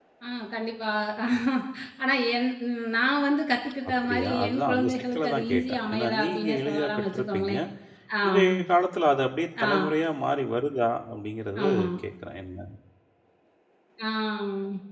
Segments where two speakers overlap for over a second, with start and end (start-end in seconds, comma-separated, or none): 3.9-7.5